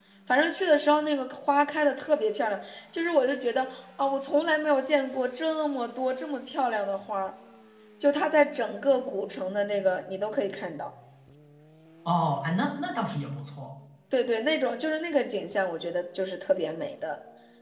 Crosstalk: none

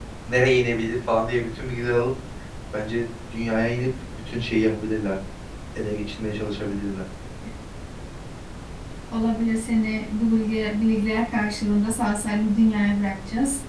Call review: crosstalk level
none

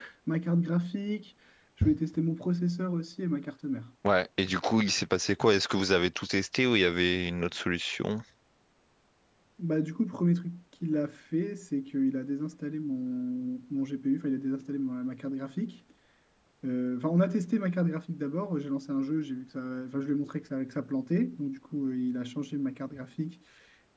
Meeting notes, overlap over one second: none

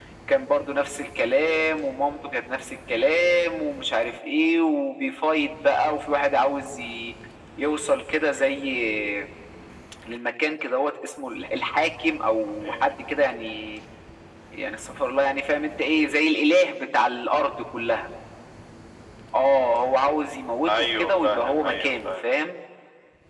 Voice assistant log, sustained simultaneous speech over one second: present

